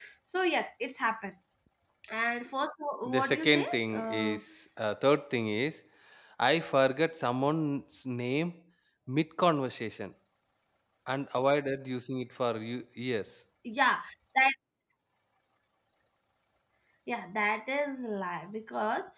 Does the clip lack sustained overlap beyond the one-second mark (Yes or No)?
No